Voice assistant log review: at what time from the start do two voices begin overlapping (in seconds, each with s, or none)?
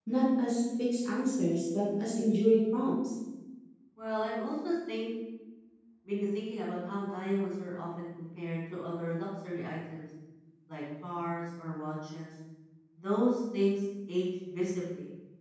none